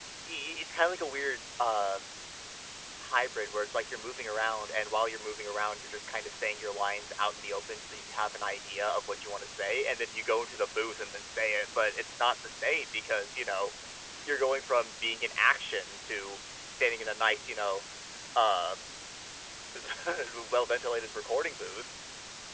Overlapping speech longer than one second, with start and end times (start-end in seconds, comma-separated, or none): none